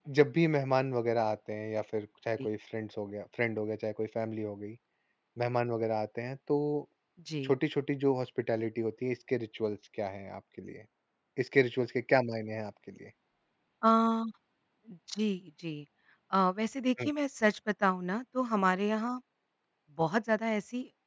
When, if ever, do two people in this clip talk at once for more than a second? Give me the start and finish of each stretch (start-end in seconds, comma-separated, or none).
none